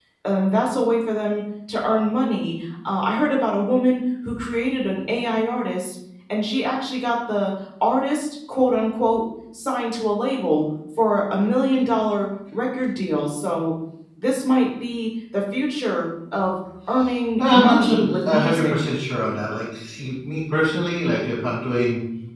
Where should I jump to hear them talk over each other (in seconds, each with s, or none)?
17.4 s